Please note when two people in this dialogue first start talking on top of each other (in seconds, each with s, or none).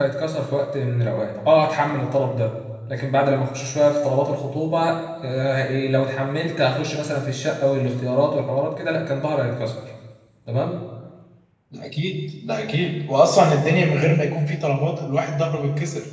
none